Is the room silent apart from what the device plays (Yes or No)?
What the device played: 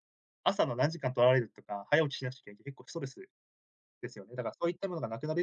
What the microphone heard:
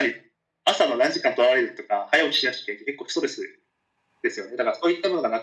Yes